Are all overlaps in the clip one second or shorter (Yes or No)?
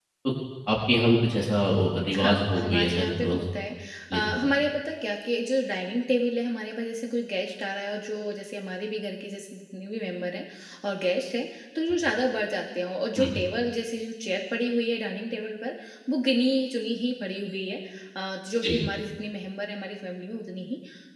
No